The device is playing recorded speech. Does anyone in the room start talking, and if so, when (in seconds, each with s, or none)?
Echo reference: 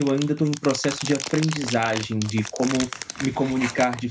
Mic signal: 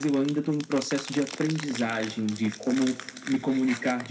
none